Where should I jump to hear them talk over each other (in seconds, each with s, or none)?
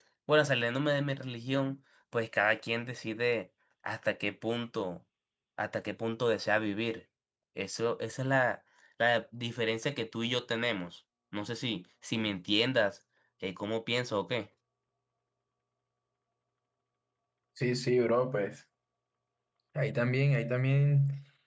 none